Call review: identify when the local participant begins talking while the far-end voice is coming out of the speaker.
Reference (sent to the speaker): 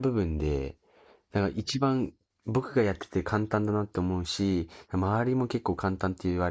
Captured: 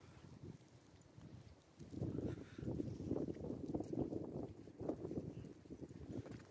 none

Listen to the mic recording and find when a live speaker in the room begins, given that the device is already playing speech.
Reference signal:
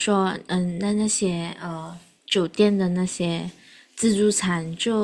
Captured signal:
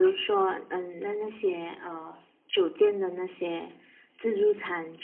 none

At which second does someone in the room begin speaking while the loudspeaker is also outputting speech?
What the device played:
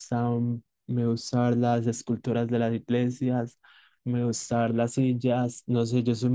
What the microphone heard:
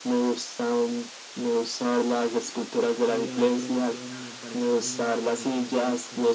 2.9 s

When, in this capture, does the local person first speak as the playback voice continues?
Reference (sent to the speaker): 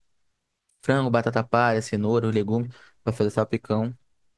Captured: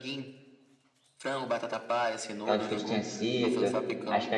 2.4 s

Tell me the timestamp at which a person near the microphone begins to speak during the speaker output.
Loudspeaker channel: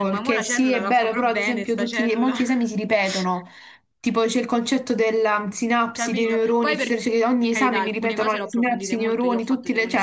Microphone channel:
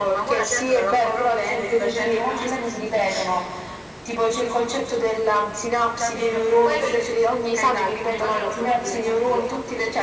none

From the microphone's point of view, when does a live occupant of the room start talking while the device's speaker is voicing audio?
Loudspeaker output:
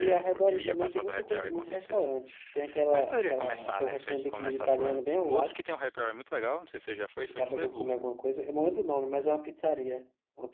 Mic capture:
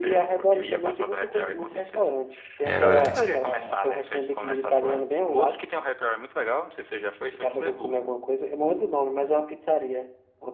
2.6 s

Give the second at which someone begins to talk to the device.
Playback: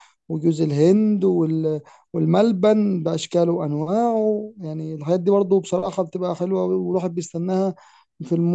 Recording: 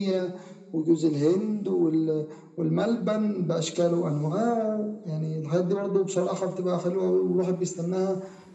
none

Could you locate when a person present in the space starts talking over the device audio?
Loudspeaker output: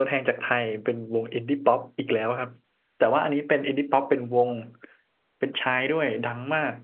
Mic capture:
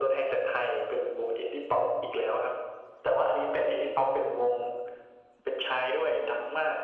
none

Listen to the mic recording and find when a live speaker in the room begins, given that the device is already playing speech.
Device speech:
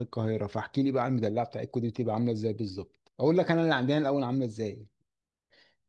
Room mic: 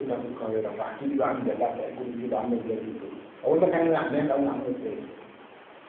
none

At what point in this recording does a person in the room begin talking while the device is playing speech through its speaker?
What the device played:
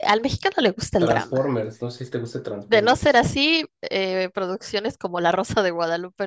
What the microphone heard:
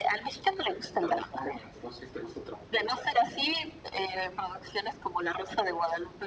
none

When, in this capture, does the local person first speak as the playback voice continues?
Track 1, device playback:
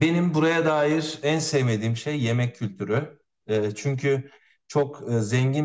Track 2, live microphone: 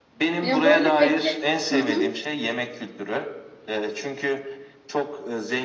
0.4 s

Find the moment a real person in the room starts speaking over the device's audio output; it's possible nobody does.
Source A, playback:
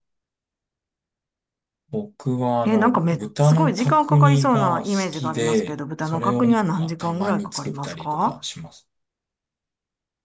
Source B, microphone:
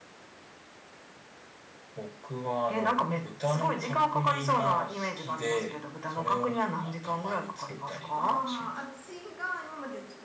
8.2 s

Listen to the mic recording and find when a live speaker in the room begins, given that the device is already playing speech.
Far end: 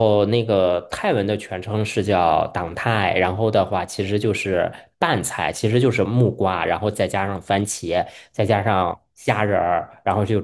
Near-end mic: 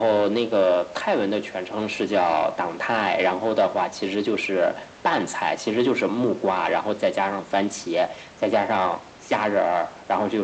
none

